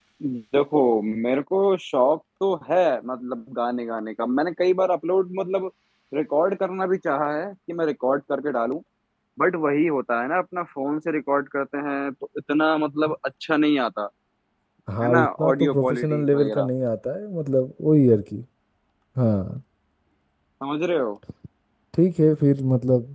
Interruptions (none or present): present